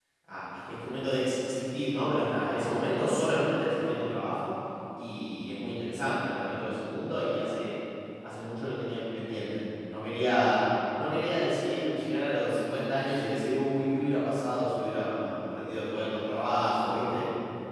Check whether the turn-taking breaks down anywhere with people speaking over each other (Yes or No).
No